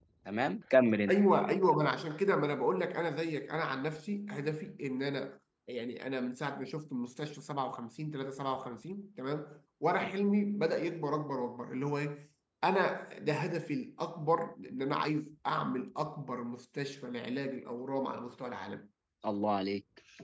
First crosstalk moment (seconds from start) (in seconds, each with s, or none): none